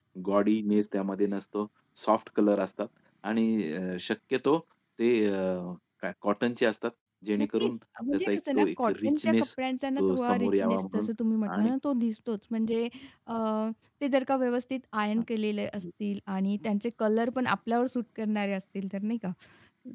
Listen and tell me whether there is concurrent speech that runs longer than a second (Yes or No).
Yes